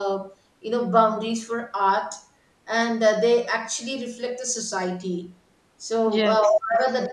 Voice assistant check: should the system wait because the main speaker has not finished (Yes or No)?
Yes